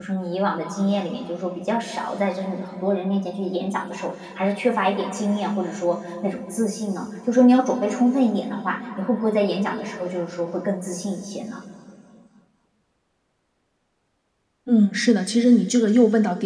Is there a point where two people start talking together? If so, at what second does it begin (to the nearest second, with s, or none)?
none